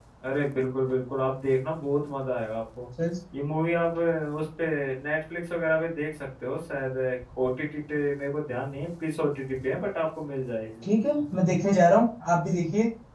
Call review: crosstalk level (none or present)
none